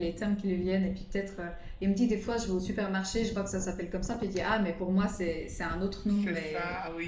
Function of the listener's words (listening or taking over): taking over